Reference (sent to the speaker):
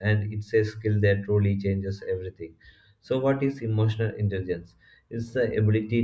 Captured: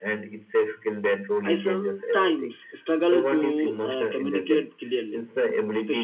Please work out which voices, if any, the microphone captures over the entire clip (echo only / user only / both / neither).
both